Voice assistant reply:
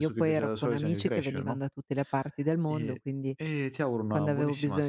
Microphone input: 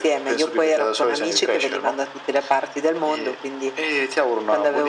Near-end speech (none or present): none